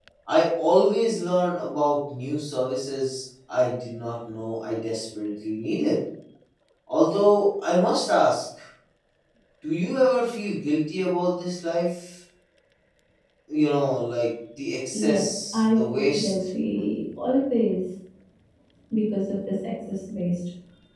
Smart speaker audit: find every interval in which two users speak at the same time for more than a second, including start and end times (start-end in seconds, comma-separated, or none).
14.9-16.3